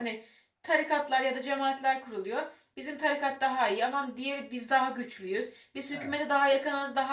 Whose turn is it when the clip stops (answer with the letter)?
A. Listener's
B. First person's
B